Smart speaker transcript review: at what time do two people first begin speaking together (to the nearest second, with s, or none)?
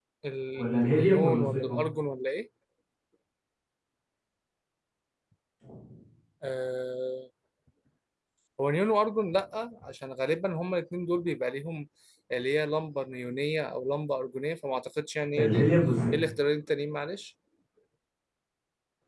1 s